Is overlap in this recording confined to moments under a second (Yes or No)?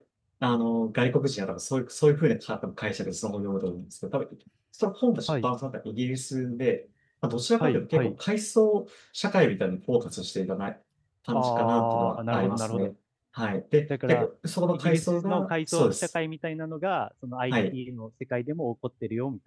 No